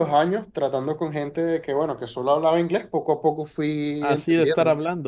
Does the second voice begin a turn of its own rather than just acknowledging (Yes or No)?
Yes